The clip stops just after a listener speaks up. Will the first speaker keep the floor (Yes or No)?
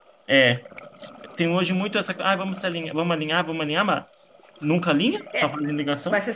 No